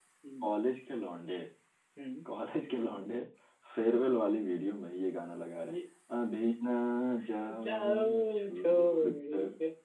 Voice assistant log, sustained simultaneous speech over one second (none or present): present